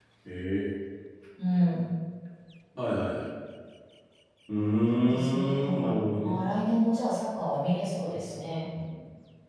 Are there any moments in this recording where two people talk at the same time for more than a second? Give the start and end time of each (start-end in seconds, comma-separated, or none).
5.0-6.4